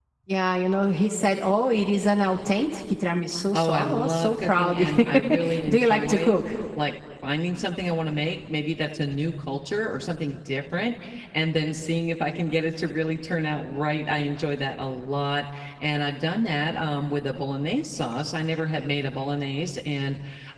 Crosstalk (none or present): present